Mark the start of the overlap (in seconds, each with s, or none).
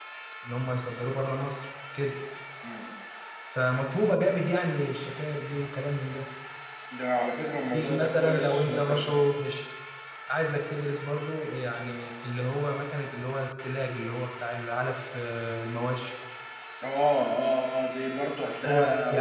7.7 s